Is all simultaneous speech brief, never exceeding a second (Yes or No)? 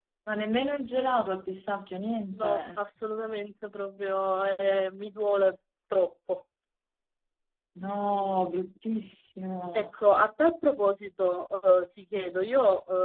Yes